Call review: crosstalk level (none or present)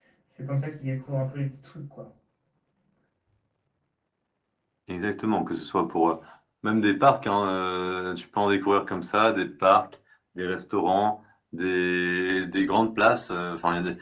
none